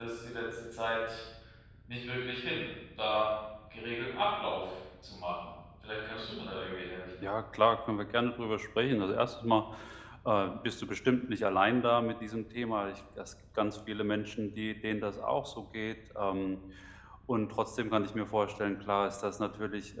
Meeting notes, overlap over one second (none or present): none